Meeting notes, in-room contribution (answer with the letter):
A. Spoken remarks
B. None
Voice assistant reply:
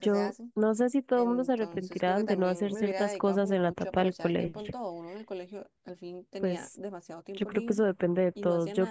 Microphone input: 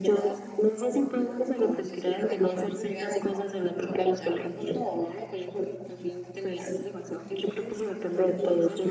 B